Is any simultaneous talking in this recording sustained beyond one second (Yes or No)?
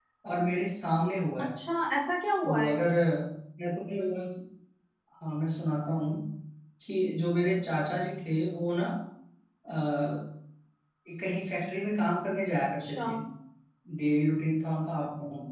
No